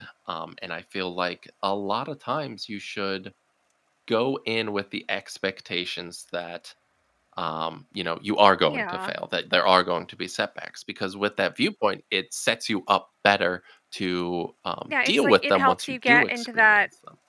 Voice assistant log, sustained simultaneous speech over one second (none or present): present